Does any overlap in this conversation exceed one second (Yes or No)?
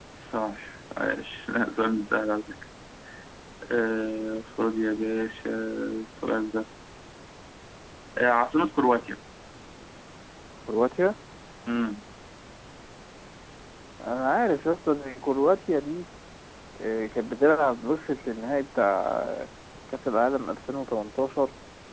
No